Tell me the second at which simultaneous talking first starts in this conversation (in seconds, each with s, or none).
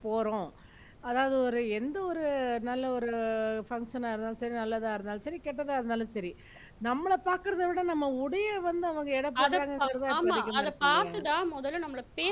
9.4 s